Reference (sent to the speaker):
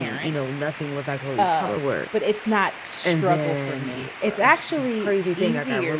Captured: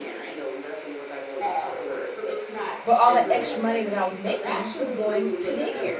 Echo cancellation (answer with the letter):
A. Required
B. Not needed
A